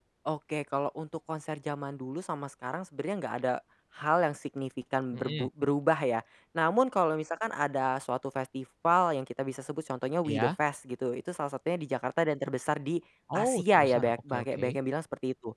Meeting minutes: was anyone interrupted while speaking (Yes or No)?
Yes